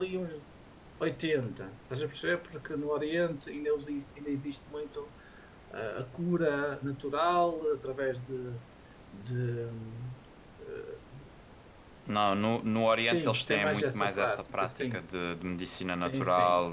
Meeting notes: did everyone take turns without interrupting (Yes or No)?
No